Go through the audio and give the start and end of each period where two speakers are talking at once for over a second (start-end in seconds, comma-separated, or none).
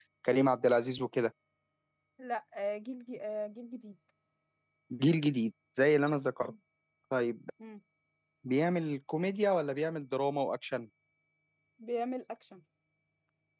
none